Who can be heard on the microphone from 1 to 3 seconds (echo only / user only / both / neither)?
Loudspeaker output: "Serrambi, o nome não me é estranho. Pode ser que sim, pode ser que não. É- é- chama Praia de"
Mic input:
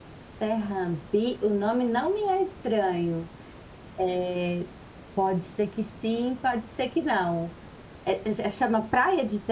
echo only